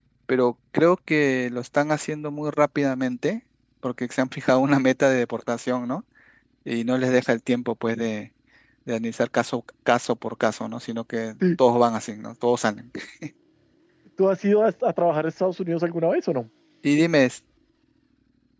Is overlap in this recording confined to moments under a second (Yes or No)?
Yes